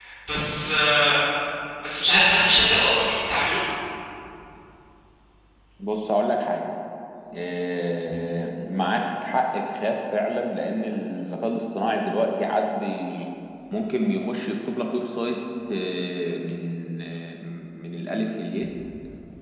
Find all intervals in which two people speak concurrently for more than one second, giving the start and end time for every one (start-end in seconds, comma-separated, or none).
none